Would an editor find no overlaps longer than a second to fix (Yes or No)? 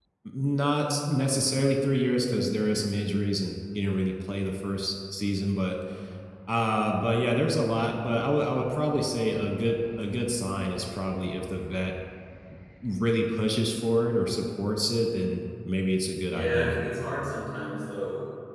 Yes